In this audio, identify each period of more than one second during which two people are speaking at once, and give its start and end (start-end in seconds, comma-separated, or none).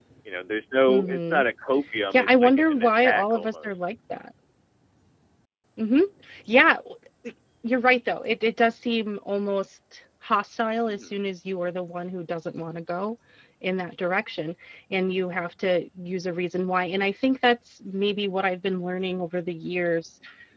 2.1-3.8